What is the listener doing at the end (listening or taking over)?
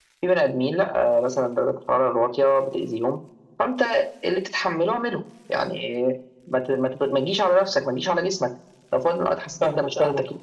taking over